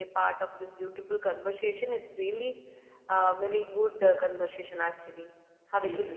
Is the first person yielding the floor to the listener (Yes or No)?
Yes